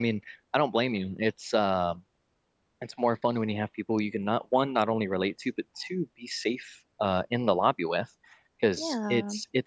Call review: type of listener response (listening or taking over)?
listening